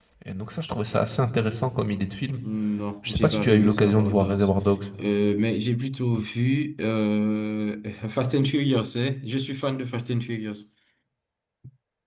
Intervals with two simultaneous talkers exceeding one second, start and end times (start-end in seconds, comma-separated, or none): 3.1-4.5